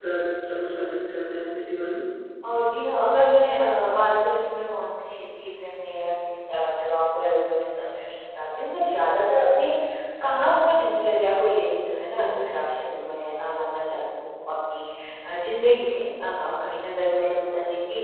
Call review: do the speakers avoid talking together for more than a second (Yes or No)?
Yes